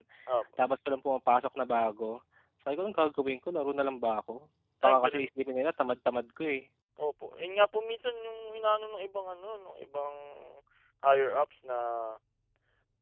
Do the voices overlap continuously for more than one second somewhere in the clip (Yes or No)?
No